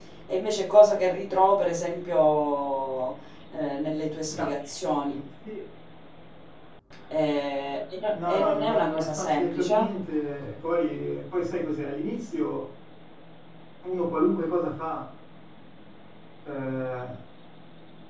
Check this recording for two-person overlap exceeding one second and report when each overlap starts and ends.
8.3-9.7

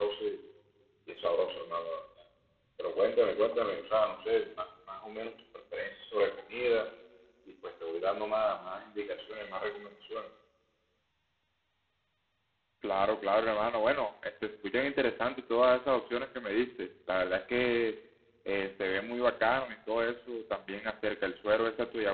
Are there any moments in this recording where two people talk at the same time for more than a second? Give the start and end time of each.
none

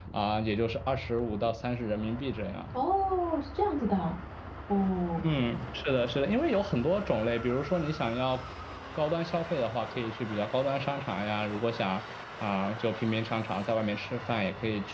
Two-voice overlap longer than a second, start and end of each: none

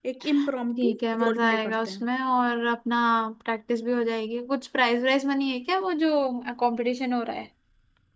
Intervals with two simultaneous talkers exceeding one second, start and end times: 0.8-2.0

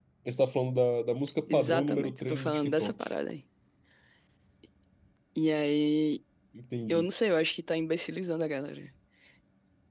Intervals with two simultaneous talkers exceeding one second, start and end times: 1.5-3.0

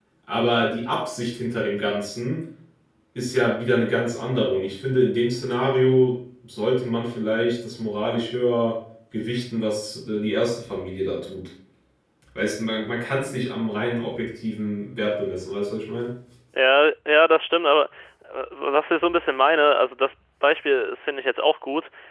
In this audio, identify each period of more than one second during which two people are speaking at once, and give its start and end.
none

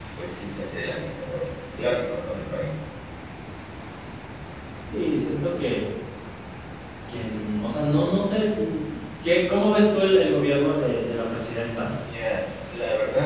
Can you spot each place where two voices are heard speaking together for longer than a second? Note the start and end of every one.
none

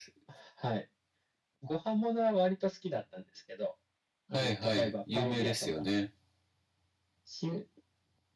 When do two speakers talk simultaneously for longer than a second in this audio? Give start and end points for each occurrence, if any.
4.3-5.8

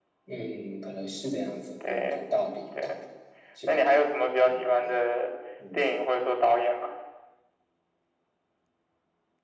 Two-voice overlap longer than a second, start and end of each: none

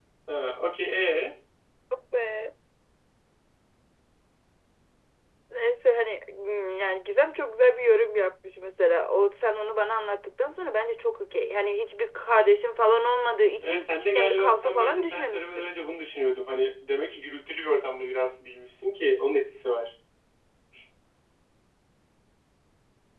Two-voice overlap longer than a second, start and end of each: 13.6-15.7

